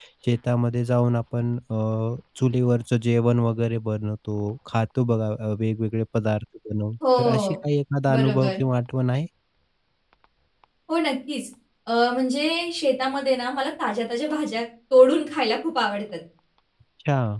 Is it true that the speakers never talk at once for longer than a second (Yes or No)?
Yes